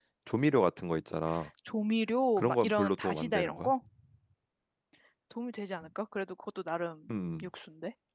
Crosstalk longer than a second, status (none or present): present